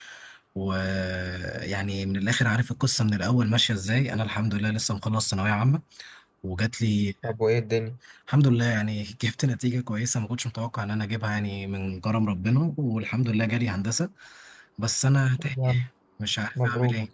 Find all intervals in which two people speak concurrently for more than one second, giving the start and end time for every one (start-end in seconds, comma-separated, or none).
none